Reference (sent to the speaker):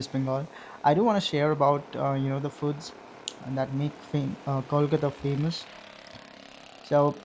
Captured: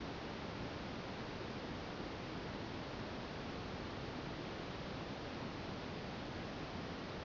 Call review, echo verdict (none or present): none